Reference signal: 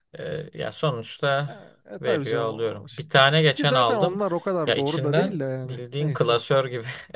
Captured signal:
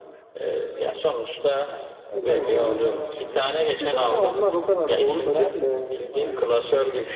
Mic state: both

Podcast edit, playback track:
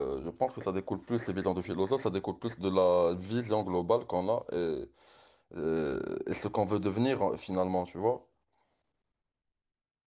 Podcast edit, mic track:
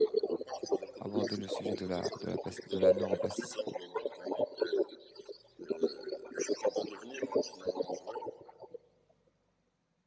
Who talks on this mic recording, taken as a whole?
both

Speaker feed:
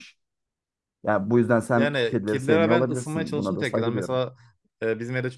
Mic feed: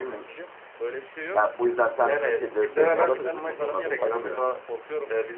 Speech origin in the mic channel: both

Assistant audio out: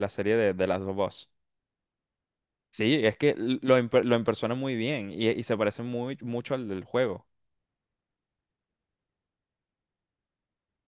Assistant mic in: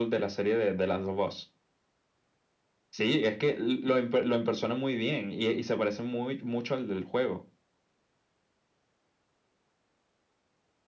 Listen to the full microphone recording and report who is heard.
echo only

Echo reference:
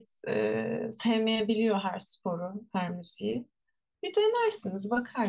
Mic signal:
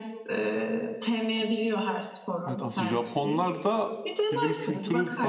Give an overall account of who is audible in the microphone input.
both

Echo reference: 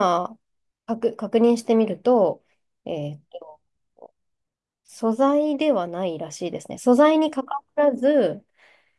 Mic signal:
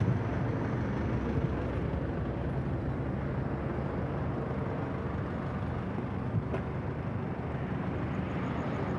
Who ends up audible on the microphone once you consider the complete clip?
neither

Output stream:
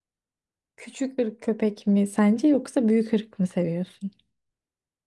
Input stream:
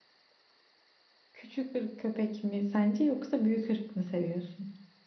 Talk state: echo only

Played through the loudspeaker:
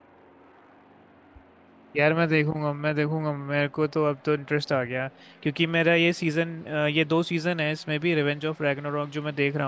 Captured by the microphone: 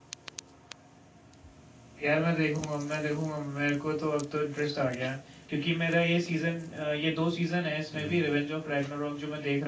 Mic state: both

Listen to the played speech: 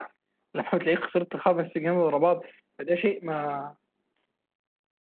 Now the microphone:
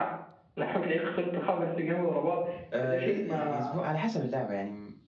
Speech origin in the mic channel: both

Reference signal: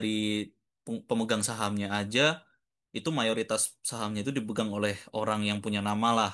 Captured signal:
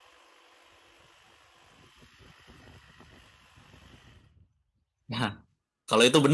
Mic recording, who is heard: user only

